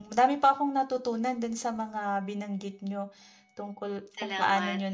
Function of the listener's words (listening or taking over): listening